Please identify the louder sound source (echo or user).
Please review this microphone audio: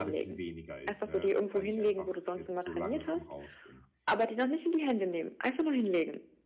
echo